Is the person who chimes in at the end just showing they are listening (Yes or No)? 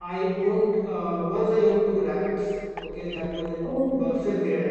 Yes